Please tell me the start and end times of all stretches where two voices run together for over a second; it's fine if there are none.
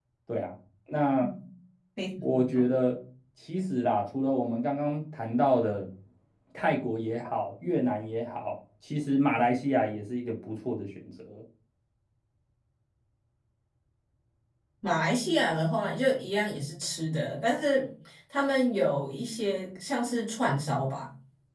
none

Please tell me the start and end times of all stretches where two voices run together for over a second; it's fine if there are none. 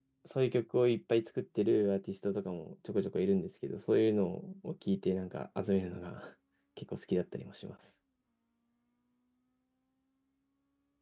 none

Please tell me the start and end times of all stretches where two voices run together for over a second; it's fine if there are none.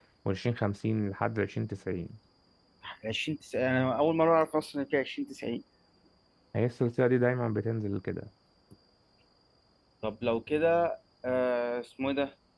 none

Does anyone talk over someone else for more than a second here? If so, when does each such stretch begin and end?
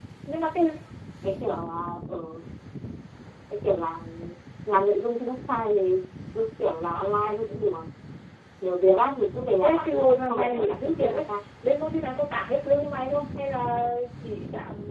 9.6-11.3

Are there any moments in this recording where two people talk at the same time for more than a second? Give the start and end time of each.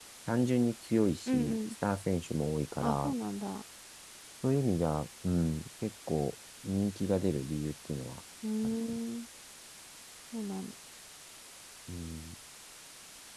none

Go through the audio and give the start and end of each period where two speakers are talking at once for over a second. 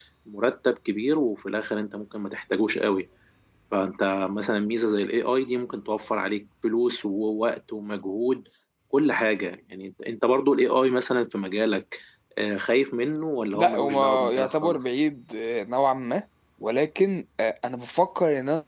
13.5-14.8

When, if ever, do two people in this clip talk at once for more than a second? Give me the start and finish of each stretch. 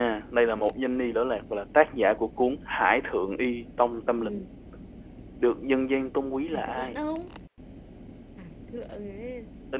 none

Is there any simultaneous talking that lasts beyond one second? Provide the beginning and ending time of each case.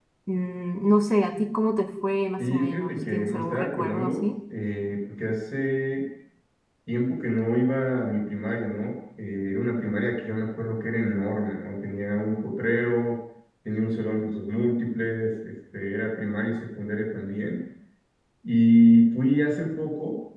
2.4-4.4

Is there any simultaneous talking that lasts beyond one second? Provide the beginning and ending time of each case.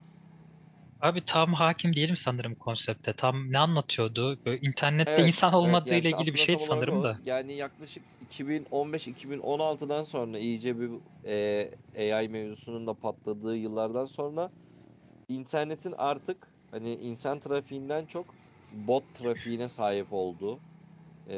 5.2-7.2

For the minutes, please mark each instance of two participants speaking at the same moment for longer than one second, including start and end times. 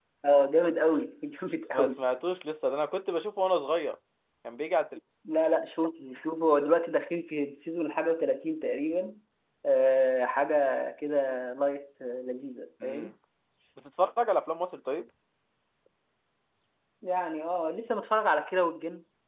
none

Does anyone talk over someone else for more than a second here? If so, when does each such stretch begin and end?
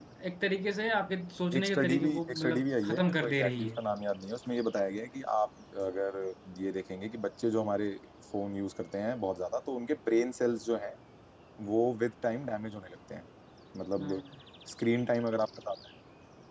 1.6-3.7

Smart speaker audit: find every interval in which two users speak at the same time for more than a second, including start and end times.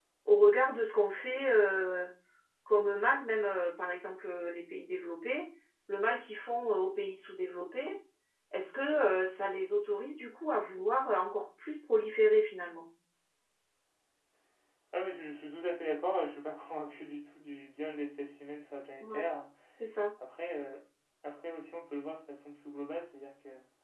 none

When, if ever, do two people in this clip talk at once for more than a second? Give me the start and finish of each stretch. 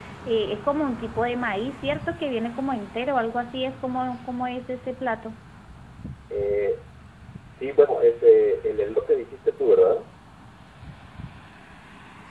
none

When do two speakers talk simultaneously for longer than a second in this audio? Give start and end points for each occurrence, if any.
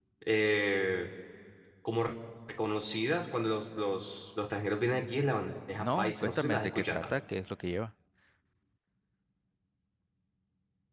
5.8-7.0

